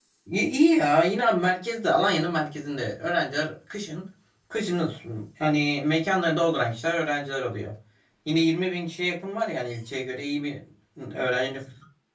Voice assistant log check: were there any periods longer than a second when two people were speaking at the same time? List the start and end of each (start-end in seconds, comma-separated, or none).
none